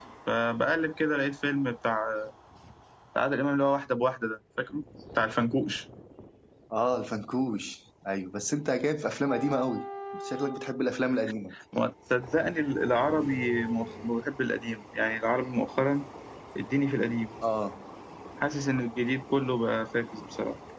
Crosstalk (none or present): none